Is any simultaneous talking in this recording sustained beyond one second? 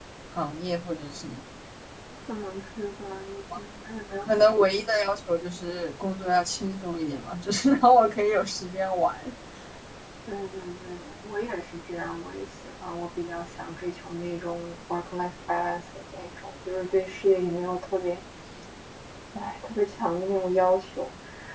No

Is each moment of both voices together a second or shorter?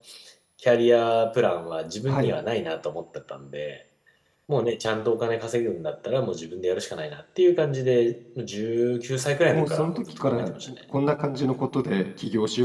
No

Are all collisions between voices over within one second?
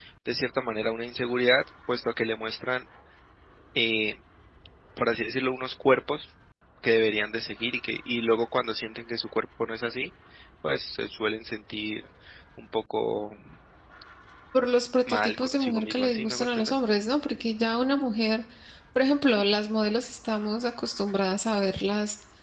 No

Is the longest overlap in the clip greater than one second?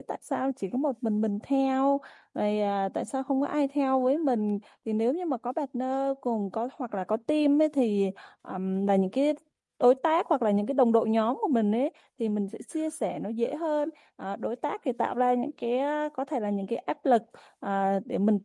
No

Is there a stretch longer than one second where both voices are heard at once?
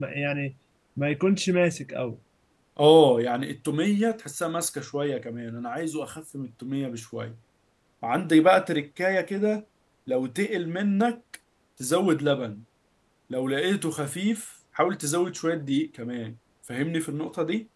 No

